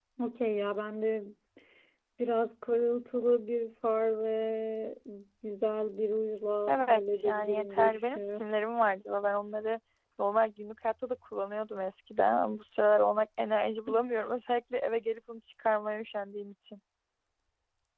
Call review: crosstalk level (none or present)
present